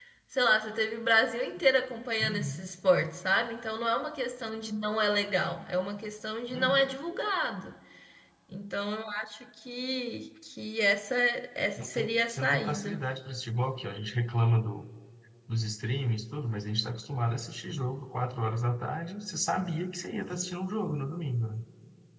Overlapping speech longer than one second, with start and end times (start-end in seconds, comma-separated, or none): 11.8-13.0